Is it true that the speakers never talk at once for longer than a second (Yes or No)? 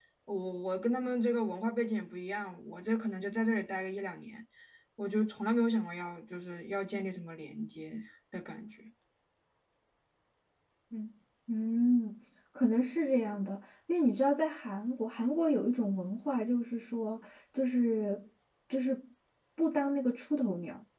Yes